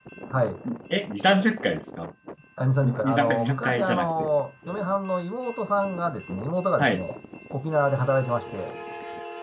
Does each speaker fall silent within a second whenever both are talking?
No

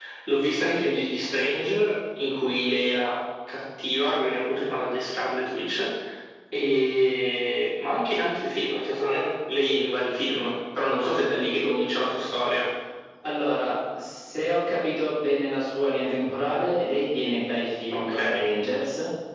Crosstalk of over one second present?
No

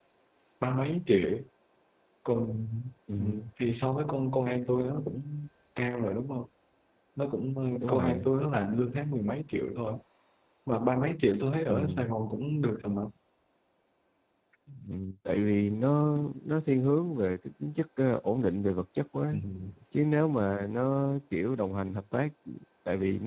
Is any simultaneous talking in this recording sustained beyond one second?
No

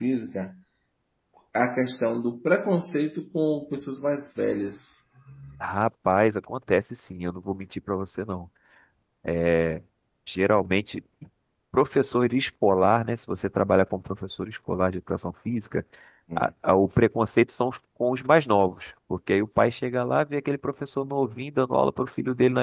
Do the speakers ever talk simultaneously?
No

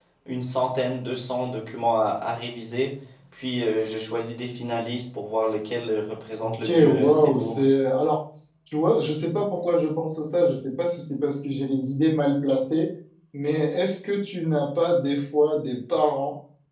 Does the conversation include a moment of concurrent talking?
Yes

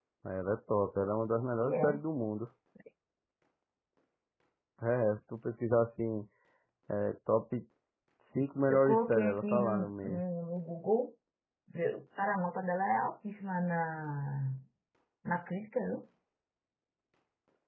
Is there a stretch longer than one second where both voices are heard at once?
Yes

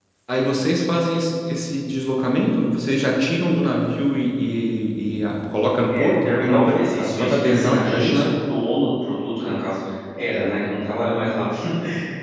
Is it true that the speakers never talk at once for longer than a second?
No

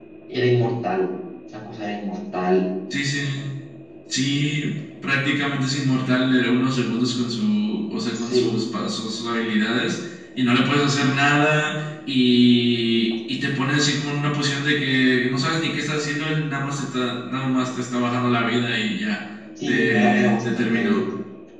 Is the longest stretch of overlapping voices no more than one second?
No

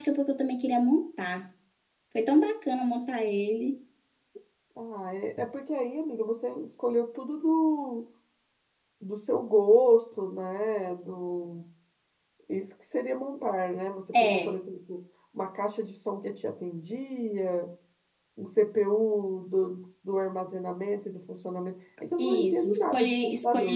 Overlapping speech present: Yes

